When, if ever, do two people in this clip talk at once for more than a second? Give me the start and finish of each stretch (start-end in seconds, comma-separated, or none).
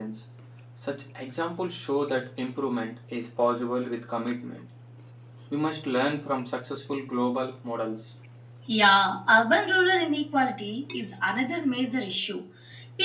none